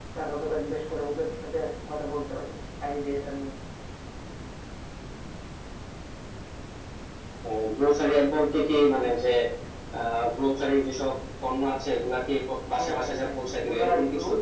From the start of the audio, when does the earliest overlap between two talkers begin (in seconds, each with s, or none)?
12.8 s